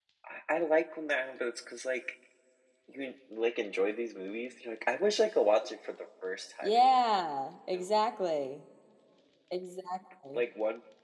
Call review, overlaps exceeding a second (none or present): none